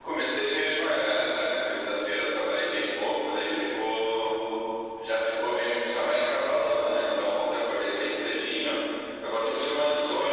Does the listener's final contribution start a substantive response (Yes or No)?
No